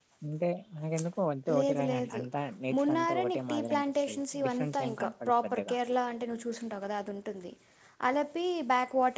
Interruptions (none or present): present